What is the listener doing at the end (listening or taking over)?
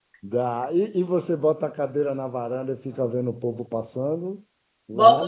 taking over